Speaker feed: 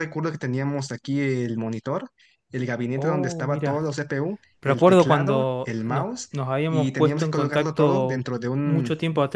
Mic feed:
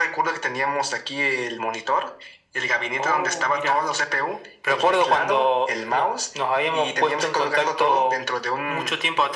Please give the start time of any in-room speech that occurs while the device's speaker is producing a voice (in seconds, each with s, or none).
none